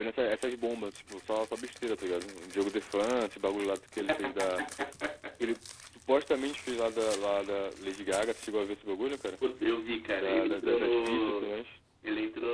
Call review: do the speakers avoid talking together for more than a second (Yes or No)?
No